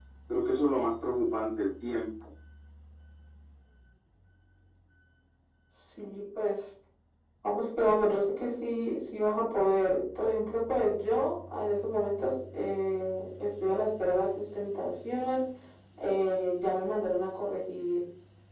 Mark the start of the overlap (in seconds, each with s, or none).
none